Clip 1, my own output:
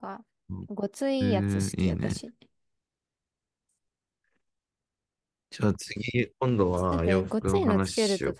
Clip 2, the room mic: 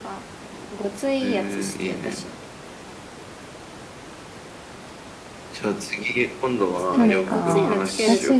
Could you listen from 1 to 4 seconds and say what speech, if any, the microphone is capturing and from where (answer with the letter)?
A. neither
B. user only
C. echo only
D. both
C